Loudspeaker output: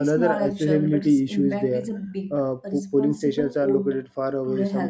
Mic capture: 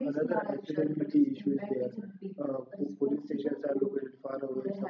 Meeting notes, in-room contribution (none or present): none